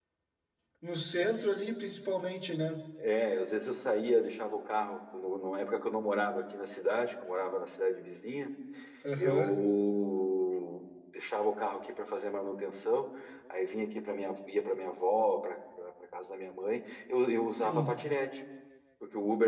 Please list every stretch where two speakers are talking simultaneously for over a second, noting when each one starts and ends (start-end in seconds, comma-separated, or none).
none